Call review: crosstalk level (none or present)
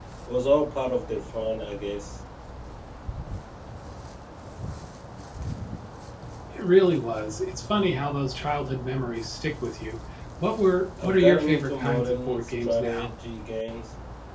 present